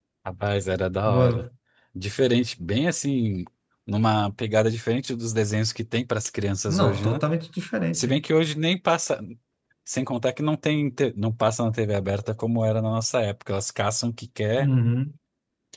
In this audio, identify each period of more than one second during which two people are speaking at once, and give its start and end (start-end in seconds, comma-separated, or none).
none